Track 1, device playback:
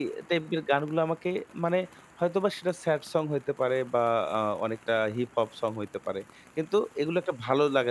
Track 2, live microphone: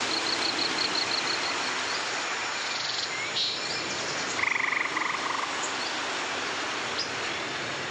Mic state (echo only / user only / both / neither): neither